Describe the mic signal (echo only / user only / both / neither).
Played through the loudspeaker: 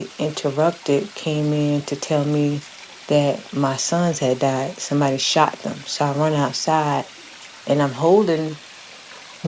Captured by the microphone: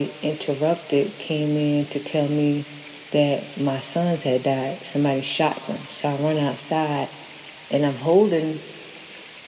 echo only